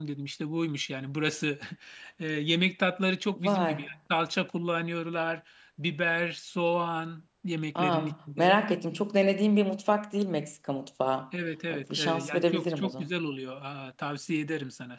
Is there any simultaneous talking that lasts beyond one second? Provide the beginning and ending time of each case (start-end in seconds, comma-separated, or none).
11.7-13.1